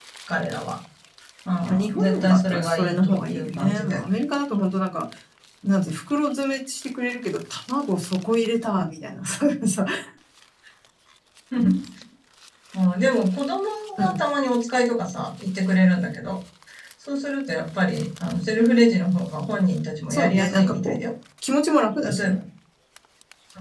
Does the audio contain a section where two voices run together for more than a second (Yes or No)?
Yes